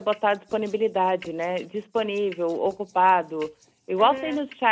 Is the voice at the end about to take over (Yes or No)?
No